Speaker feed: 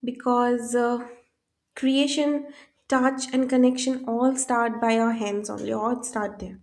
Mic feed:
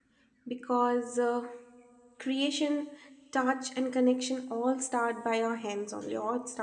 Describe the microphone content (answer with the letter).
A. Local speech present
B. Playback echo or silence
B